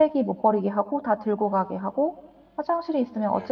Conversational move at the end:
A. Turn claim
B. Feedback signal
B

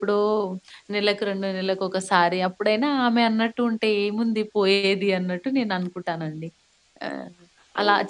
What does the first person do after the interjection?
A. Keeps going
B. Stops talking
A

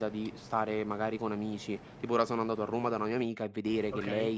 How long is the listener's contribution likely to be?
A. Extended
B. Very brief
B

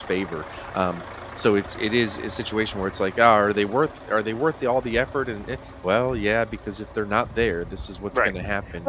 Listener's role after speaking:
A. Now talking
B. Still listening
A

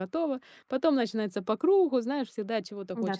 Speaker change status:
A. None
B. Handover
B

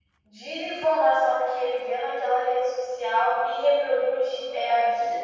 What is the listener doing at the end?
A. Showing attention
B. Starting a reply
B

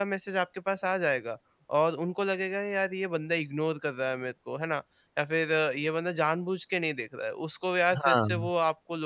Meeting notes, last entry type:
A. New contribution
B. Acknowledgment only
B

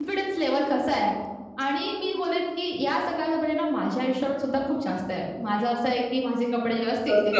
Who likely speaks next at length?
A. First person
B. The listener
B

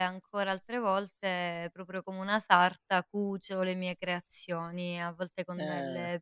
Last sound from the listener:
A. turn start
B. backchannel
B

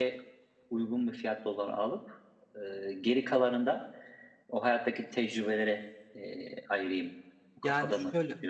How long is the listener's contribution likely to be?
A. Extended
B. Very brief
A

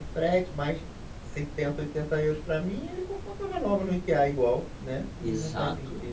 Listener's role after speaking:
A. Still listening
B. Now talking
B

